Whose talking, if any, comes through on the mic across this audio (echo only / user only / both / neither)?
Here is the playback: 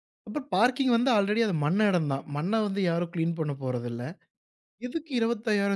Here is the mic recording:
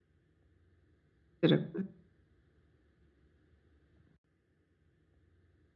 user only